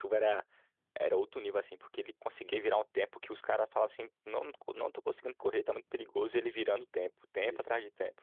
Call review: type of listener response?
taking over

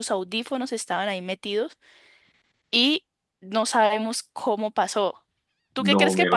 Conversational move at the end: taking over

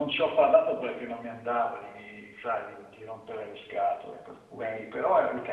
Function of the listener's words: listening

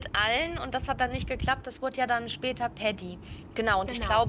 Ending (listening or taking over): listening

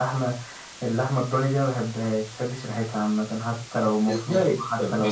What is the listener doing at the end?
taking over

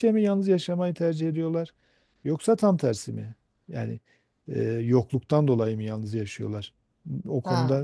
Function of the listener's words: taking over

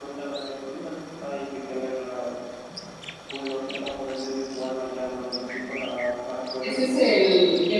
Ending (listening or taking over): taking over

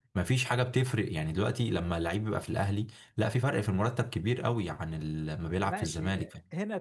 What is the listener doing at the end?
taking over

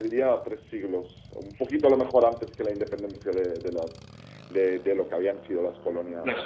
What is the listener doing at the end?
taking over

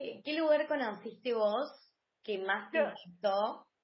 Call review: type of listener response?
listening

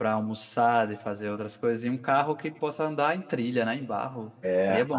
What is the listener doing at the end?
taking over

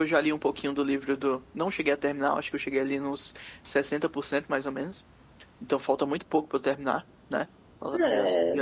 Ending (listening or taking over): taking over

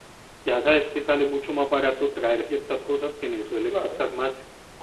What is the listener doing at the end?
listening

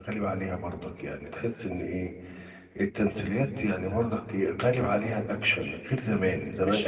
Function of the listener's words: taking over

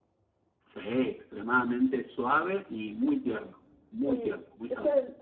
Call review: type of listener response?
taking over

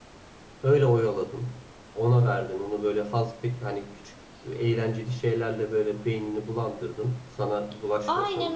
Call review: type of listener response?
taking over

